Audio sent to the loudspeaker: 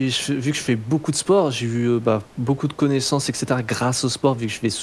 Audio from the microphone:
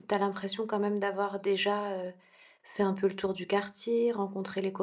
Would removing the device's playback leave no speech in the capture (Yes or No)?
No